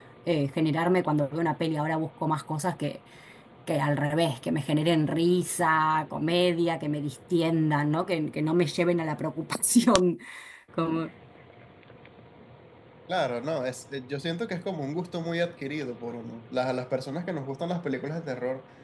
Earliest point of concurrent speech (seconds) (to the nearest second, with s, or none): none